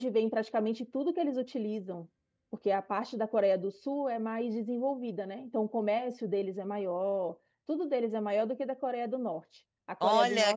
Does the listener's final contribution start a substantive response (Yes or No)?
Yes